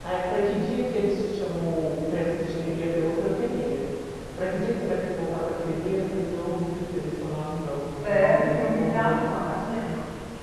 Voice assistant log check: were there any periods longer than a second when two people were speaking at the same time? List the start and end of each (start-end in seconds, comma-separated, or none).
8.1-9.6